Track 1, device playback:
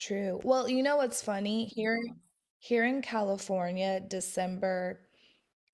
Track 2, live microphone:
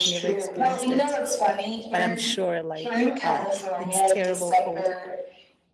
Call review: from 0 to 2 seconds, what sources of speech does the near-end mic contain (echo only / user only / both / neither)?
both